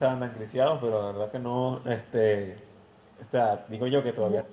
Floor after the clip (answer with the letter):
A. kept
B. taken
A